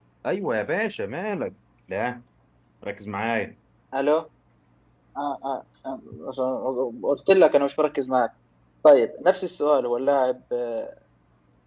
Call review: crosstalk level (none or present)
none